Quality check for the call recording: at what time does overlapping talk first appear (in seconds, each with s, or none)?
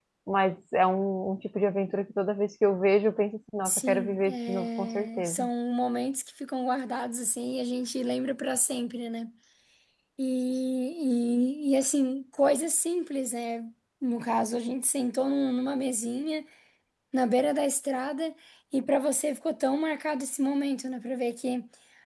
3.6 s